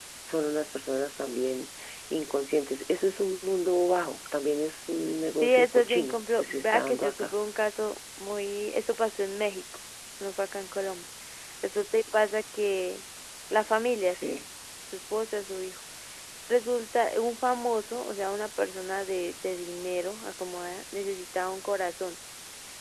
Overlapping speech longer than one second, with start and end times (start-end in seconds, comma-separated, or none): 5.4-7.3